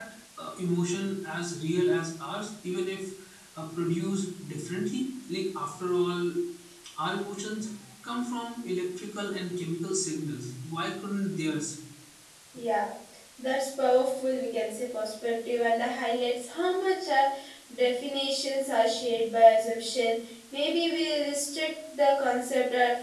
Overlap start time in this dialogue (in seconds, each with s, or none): none